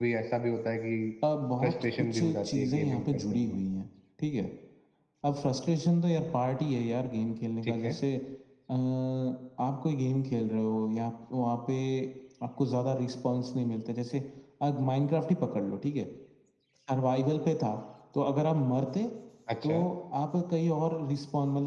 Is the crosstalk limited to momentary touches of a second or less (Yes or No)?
No